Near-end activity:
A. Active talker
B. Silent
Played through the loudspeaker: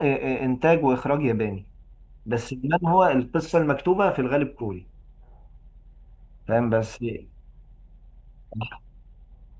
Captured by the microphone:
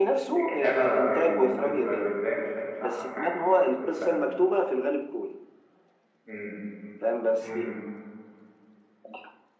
A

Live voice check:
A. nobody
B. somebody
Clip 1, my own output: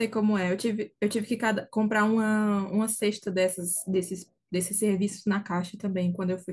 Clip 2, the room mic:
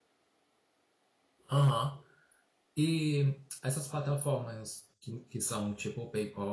B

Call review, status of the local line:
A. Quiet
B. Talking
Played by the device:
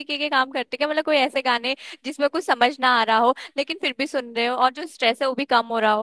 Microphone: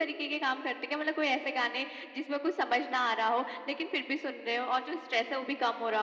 A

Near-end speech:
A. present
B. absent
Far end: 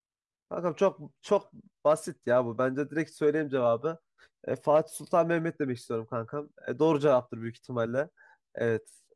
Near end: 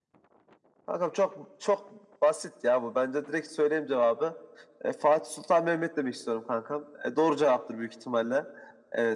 B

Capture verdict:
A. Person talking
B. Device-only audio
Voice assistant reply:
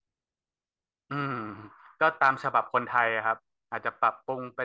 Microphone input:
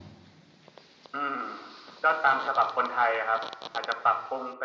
B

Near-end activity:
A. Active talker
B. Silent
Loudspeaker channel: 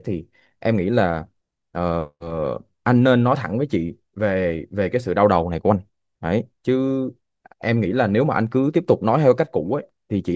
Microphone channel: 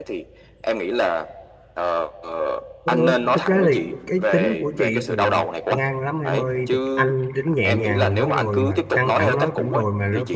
A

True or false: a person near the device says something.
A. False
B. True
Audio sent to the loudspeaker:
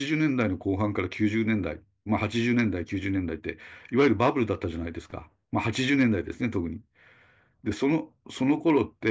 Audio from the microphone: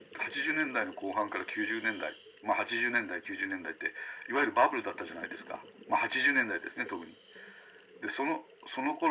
A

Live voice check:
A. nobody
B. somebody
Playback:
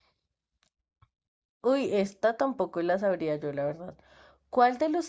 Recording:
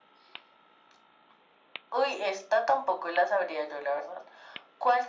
A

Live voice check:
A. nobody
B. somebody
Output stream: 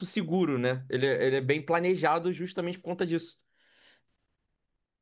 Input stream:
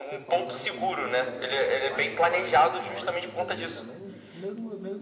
B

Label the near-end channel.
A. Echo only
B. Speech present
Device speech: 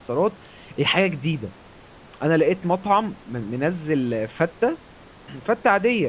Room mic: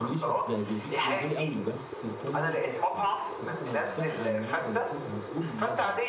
B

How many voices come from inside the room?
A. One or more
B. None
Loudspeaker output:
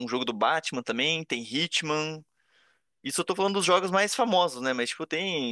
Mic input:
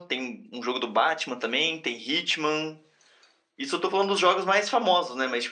B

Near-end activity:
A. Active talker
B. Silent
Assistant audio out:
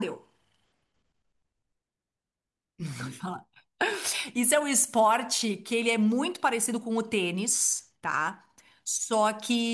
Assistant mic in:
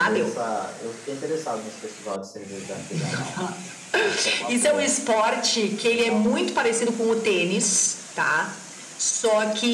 A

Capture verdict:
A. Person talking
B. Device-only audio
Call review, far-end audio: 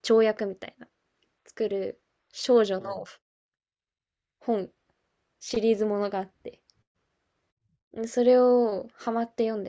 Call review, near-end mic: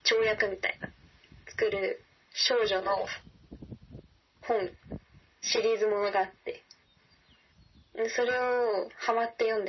B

